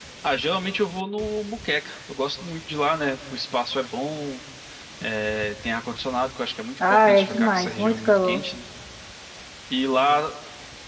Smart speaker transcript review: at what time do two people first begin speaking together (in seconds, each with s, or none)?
6.8 s